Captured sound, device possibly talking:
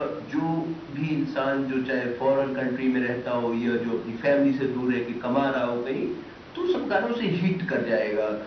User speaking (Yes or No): No